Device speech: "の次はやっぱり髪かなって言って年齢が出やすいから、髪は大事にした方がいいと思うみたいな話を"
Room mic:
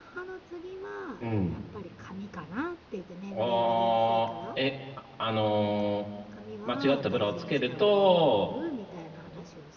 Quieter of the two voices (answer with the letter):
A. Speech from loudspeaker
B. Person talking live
A